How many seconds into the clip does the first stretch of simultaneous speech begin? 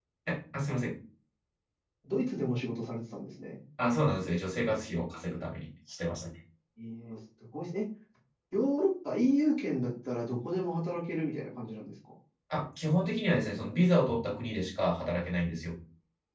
none

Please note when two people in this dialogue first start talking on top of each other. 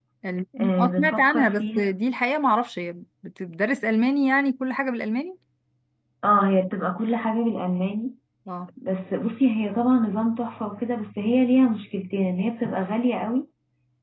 0.6 s

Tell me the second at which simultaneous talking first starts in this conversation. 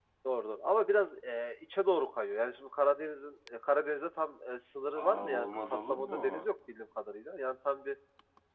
4.9 s

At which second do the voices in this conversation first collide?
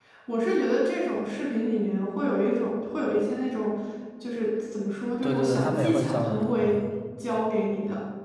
5.2 s

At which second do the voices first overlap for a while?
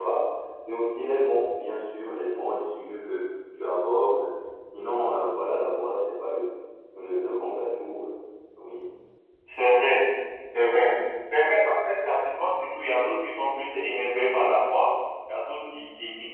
none

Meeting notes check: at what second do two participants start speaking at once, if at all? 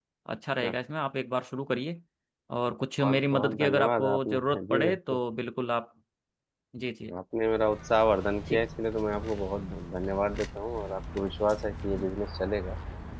3.0 s

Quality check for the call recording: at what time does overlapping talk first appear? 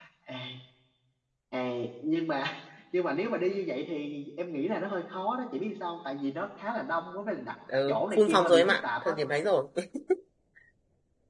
7.7 s

